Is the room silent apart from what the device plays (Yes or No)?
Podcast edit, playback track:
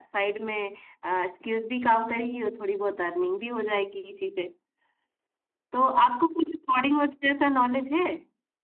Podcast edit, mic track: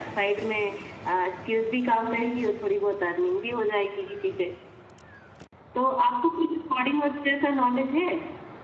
Yes